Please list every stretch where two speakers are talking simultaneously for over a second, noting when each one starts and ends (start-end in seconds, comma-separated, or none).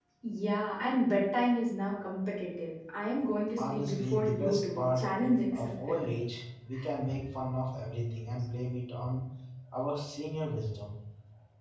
3.6-5.1